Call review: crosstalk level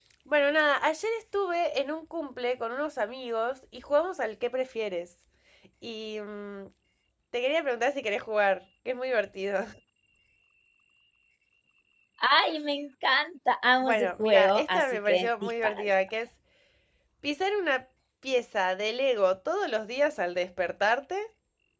present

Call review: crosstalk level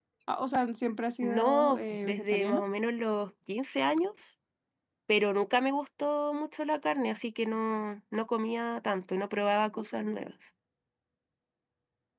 present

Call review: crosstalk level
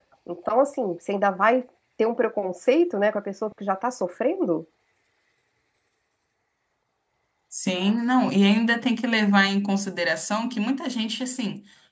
none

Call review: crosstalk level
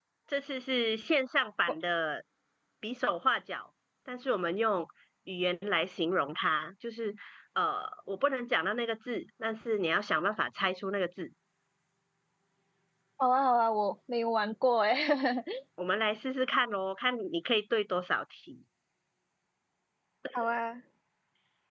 none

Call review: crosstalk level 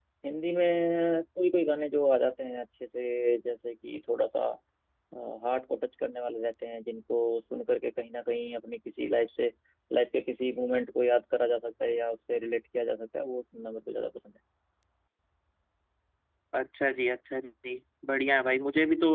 none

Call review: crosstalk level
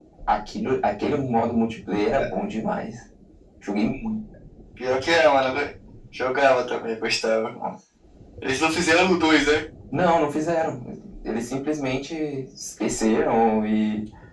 none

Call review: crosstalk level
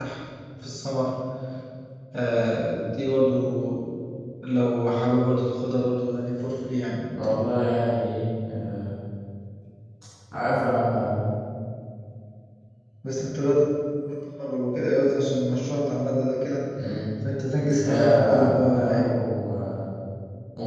present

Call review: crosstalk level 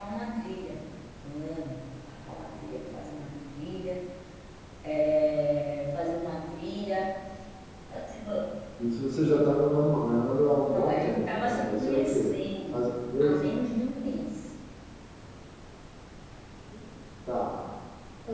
present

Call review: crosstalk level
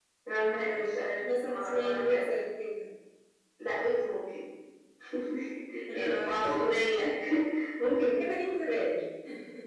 present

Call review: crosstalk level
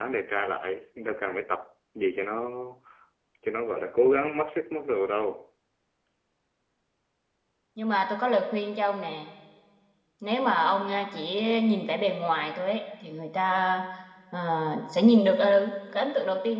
none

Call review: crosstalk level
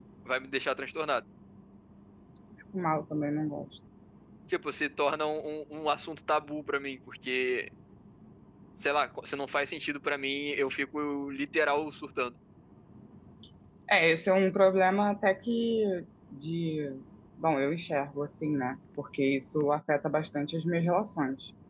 none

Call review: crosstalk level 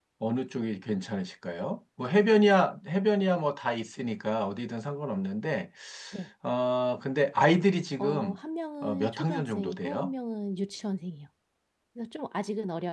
present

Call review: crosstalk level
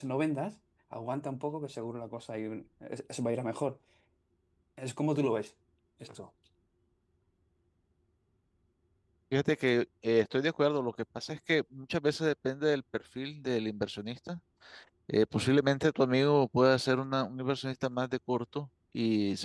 none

